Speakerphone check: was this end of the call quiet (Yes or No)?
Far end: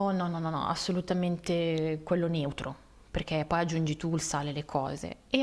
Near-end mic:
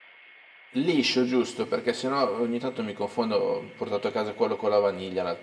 No